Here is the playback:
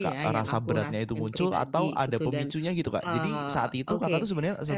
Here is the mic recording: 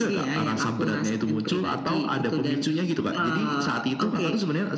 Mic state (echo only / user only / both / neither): echo only